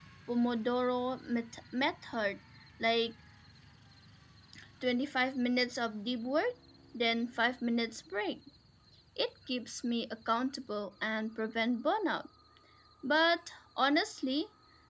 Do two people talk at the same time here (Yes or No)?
No